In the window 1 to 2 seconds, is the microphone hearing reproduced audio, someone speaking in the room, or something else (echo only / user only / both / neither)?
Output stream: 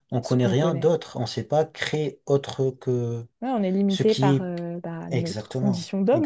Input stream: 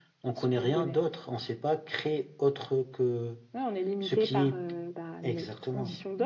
echo only